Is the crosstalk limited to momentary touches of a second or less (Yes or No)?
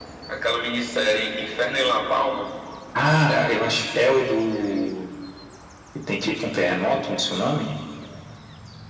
Yes